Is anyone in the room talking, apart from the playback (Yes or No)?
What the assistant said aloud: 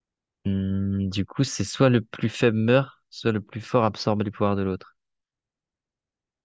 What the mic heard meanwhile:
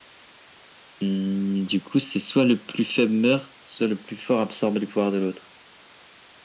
No